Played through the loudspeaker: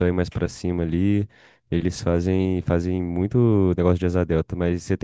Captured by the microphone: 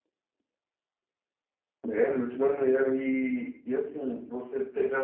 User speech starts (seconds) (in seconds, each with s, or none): 1.9 s